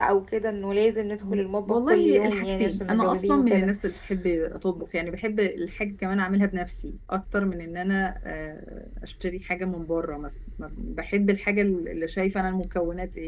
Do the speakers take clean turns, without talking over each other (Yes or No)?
No